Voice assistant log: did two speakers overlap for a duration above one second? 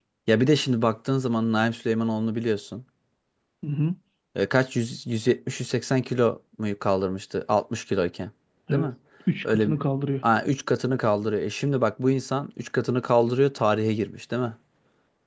No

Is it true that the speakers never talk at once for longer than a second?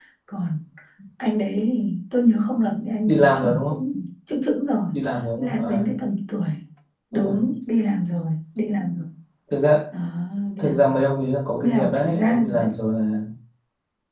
No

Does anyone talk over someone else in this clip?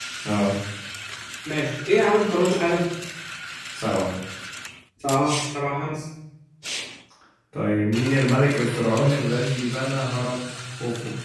No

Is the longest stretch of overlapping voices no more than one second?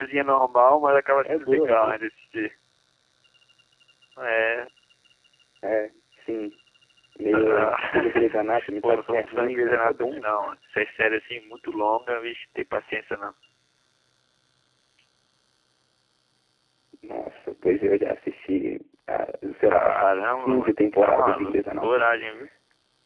No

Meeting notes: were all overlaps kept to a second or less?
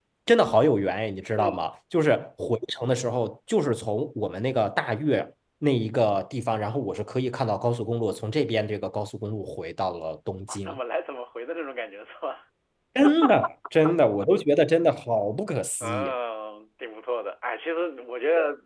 Yes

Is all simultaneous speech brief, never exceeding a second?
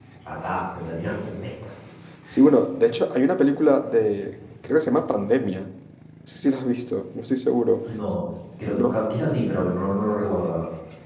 Yes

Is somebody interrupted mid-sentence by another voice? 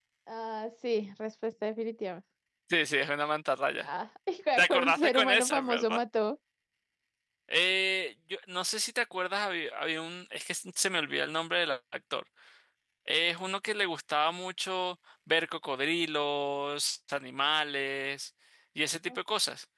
Yes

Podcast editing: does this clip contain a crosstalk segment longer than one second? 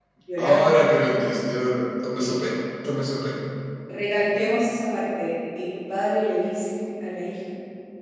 No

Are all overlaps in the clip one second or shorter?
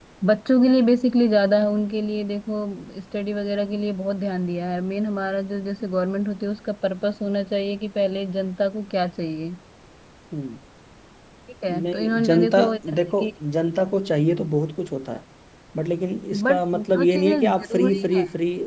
No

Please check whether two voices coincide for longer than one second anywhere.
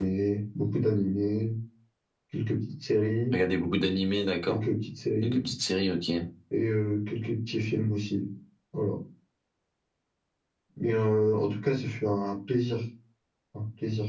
No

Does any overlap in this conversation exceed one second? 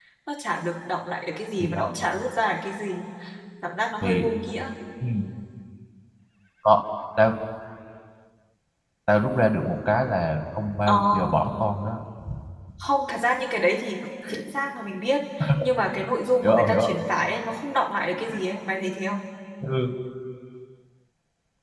No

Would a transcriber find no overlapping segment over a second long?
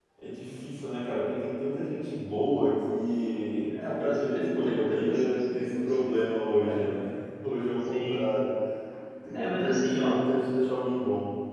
No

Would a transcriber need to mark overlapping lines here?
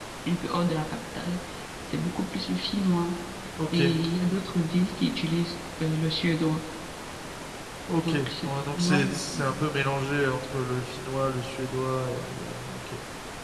Yes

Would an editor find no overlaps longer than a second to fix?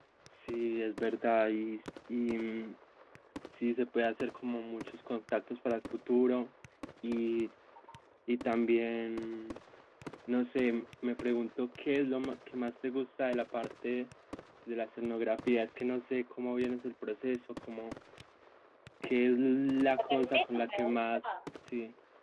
No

